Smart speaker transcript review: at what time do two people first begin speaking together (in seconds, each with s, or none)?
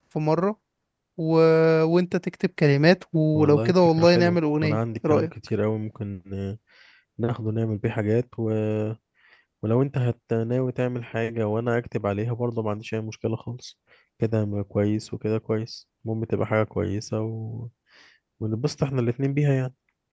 3.3 s